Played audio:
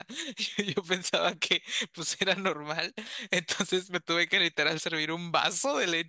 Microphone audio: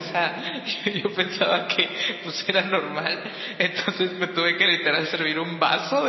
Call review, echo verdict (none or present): present